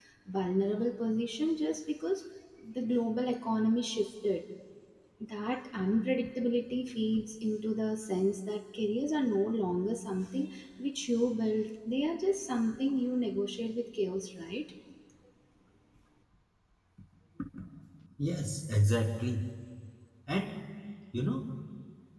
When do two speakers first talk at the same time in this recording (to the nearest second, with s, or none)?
none